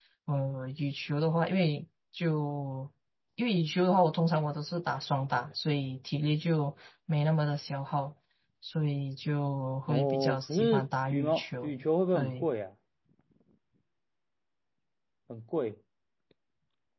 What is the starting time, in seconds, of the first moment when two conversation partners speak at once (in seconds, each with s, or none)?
9.9 s